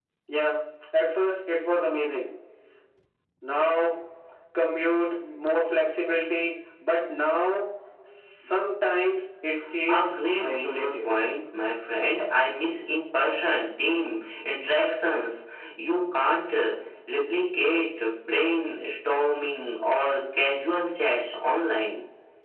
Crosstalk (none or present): present